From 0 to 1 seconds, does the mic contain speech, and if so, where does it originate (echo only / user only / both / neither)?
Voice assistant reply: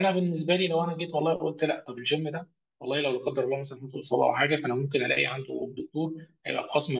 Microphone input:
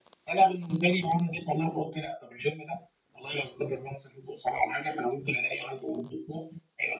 echo only